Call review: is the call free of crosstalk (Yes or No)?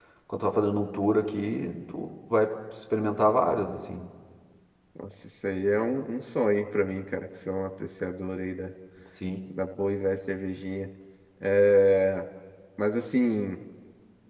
Yes